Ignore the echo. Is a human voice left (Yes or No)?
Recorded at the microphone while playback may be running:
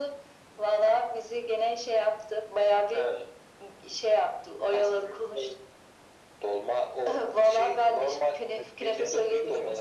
Yes